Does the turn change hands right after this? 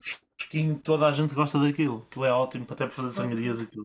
Yes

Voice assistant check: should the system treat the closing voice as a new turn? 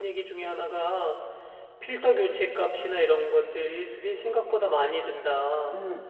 Yes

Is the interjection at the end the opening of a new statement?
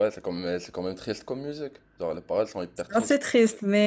Yes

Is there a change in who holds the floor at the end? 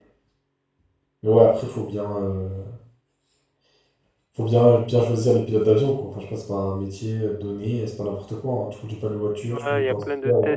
Yes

